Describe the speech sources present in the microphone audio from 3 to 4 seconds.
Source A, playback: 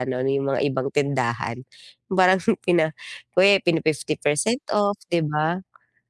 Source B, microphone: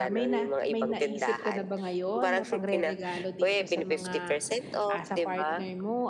both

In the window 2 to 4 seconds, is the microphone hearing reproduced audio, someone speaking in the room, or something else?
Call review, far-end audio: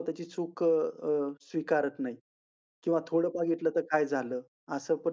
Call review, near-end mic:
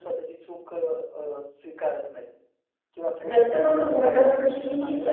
both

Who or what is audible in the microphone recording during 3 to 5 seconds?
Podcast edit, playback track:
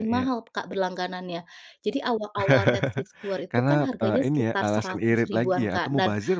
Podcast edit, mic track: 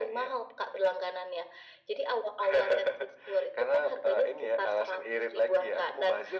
echo only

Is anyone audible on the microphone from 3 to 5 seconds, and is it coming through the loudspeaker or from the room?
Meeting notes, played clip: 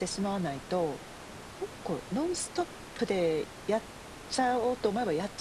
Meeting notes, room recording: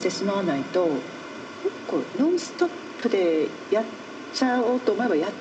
echo only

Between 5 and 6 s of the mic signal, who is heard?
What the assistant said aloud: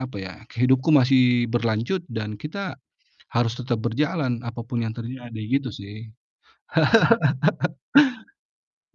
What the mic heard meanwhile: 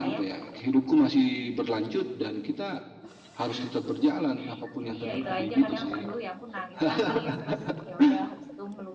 both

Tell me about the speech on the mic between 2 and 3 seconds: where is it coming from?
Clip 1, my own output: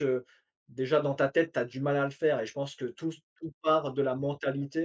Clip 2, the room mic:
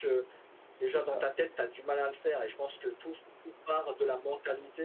echo only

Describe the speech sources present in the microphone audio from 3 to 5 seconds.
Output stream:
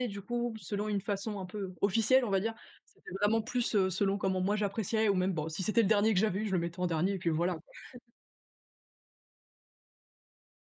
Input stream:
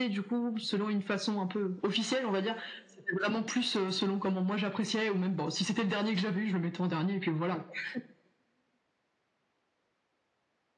echo only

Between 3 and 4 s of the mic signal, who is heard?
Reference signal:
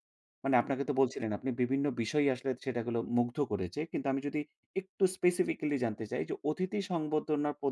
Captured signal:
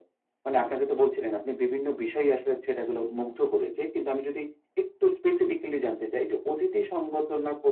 echo only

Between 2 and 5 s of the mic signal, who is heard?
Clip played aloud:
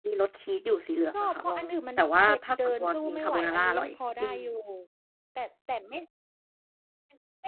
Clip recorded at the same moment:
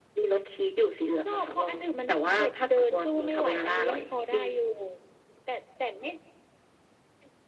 echo only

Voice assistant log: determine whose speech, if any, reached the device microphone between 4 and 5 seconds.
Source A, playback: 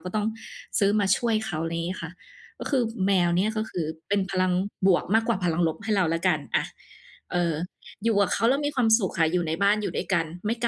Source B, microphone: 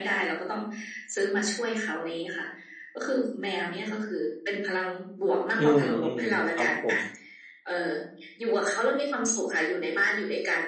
echo only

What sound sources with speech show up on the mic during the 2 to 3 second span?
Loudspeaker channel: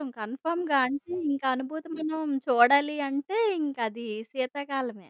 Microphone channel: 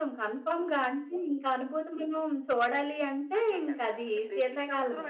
echo only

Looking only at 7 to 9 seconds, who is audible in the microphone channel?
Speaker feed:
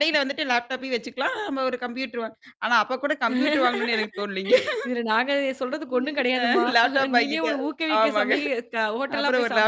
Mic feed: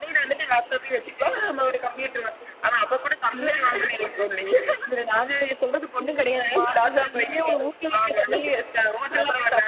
echo only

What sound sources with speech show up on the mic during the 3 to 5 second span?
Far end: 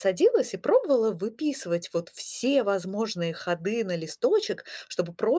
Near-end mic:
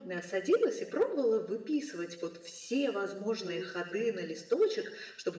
both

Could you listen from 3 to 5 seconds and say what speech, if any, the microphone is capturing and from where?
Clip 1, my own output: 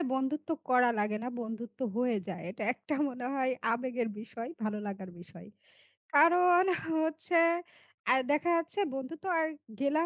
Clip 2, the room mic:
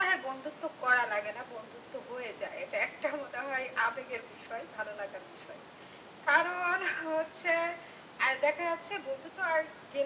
echo only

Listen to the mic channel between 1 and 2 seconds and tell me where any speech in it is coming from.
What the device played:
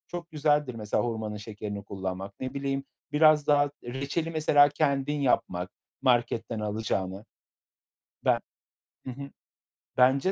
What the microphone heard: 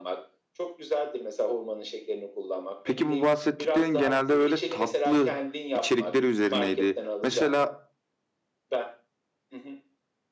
echo only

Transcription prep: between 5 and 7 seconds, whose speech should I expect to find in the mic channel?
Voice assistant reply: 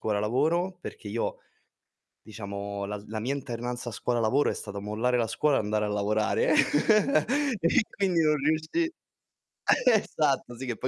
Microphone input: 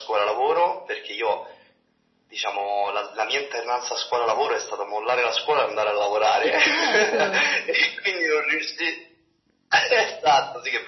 both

